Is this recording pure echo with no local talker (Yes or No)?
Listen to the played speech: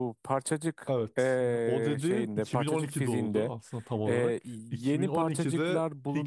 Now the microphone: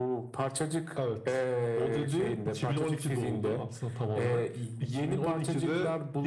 Yes